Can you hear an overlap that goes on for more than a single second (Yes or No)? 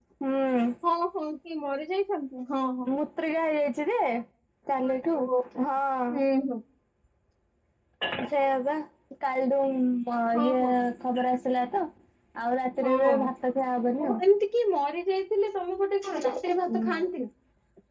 No